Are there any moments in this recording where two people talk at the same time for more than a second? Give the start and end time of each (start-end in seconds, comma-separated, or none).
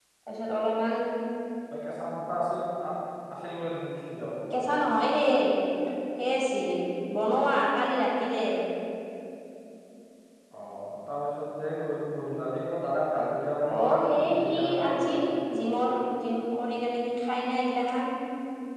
13.8-15.2